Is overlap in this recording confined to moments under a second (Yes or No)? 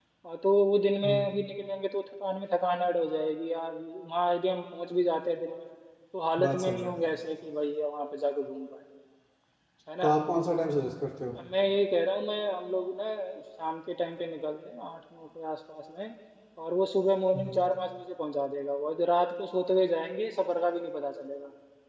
Yes